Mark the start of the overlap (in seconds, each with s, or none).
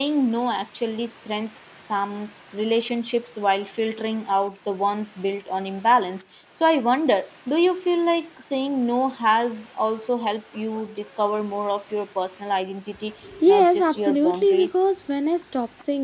13.2 s